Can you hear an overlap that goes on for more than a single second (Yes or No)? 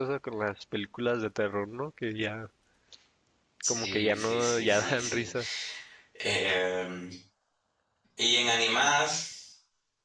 Yes